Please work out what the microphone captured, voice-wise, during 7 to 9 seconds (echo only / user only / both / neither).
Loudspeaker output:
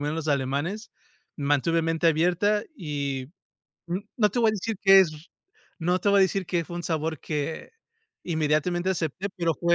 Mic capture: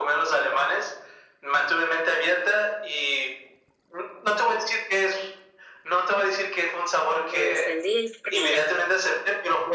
both